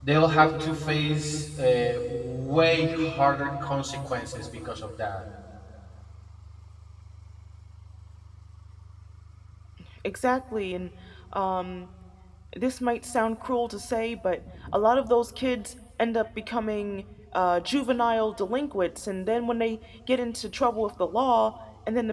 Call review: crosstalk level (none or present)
none